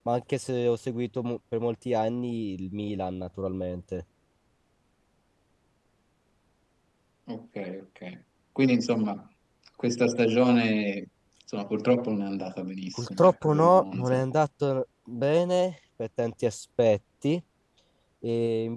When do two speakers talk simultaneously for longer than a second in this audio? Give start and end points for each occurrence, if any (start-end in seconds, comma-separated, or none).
13.0-14.2